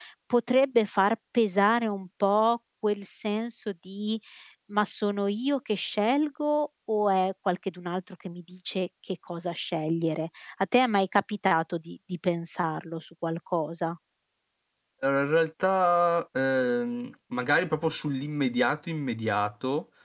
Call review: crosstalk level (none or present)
none